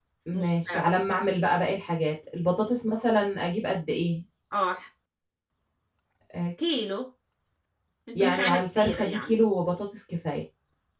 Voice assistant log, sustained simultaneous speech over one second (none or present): present